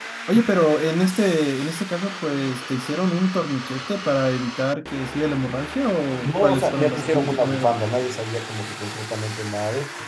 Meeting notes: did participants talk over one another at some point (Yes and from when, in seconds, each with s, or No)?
Yes, from 6.2 s